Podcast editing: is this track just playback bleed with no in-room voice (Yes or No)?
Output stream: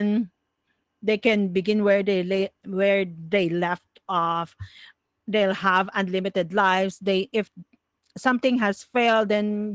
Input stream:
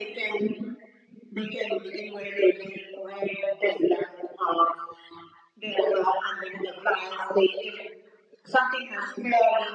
Yes